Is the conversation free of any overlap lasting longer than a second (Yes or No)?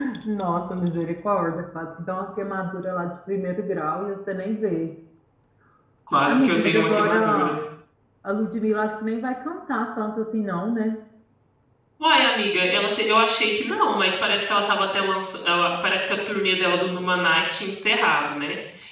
No